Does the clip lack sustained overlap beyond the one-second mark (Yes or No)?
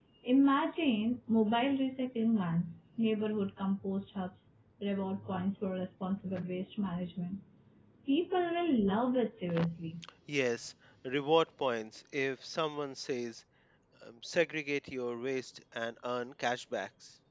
Yes